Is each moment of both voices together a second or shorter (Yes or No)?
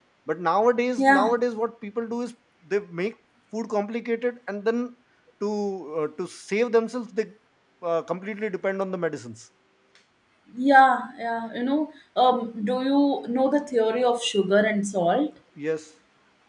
Yes